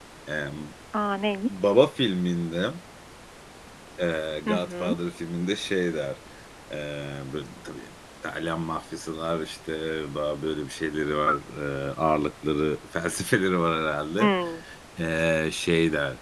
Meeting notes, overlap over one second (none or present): none